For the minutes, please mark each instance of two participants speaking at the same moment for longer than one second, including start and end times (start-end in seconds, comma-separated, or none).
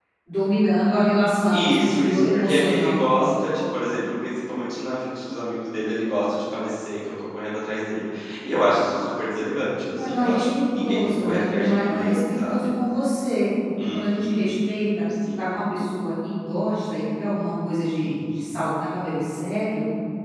1.5-3.1, 10.0-12.7